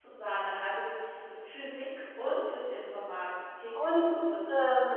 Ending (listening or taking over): taking over